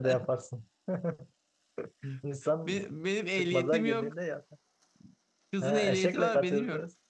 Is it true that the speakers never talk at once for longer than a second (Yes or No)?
No